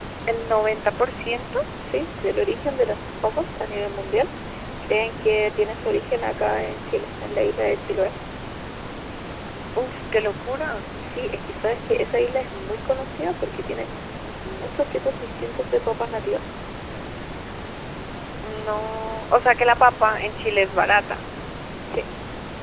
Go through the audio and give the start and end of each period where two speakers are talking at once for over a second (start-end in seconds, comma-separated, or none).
none